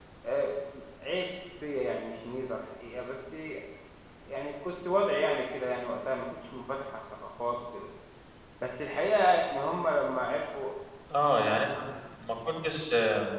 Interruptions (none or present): none